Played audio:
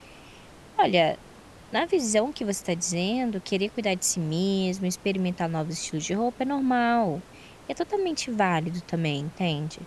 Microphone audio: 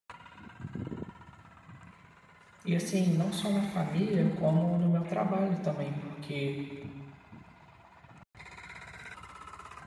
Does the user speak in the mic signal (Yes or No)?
Yes